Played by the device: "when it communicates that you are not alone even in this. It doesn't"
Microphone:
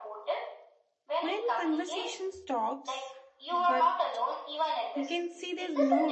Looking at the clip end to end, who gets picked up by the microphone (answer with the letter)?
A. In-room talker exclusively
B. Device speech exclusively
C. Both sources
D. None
C